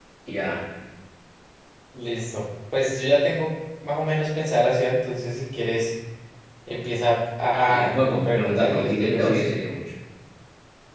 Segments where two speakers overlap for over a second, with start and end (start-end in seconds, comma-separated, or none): 7.7-9.5